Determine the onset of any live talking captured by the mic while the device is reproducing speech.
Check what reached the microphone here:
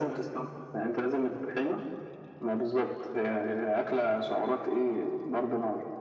none

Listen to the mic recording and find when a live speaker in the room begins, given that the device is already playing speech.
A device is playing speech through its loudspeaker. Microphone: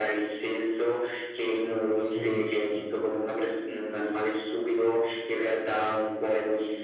2 s

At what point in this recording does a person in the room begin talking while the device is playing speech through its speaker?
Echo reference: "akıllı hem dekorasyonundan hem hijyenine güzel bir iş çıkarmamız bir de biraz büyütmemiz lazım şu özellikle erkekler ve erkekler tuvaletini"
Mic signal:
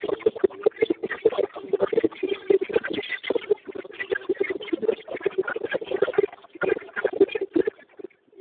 none

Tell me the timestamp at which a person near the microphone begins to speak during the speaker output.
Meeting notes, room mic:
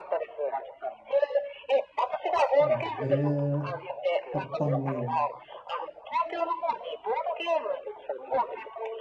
3 s

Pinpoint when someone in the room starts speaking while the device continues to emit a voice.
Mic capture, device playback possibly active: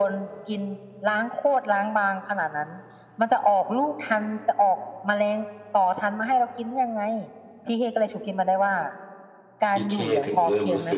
10 s

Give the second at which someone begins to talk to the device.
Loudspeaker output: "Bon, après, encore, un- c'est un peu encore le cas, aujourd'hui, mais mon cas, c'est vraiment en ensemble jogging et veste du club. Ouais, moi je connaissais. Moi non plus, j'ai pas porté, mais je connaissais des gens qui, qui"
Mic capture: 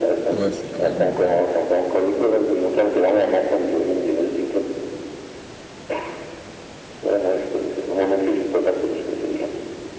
0 s

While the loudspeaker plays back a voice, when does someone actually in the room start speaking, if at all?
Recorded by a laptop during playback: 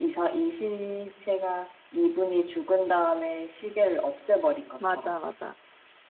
5 s

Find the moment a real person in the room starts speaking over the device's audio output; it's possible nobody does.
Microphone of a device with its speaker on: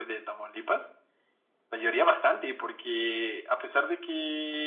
none

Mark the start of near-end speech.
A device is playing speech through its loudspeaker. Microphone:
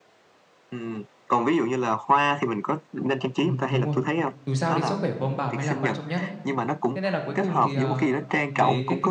3 s

